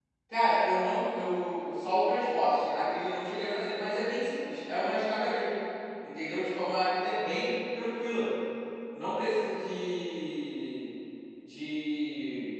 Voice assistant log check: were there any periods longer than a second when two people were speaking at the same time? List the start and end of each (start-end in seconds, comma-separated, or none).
none